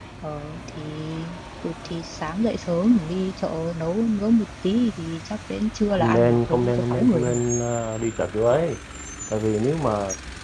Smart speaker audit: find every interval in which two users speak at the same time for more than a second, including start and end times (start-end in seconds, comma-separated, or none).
5.9-7.4